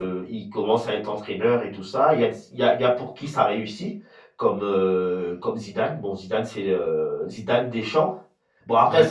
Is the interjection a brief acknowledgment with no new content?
Yes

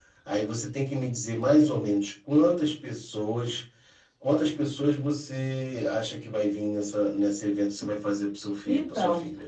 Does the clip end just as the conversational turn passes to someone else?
Yes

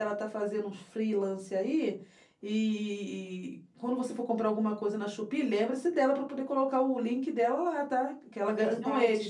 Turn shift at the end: Yes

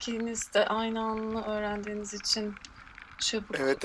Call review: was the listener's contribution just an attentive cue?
No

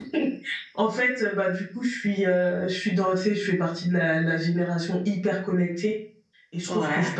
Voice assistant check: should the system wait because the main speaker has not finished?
Yes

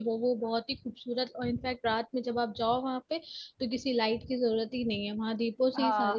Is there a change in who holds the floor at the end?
Yes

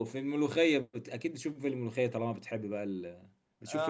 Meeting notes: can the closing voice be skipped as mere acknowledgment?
No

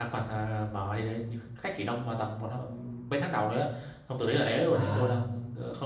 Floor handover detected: No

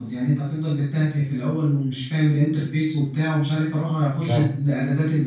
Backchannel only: Yes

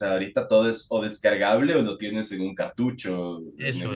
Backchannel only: No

